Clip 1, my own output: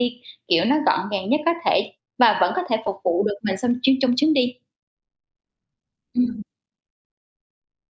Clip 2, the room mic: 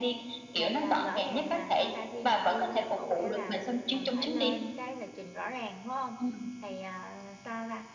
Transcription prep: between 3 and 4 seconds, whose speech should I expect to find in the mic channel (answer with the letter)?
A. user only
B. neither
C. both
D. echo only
C